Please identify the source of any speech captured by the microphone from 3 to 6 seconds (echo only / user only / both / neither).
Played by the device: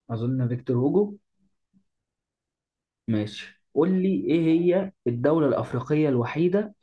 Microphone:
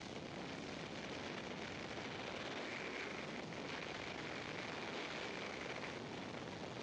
neither